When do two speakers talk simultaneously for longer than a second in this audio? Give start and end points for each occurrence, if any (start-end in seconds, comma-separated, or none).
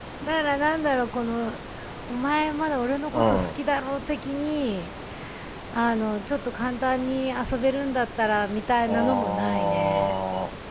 8.9-10.2